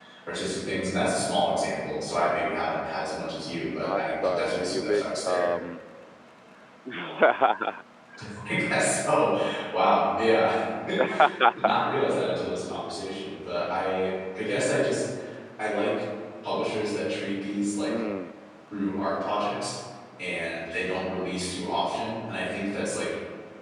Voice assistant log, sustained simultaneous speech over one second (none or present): present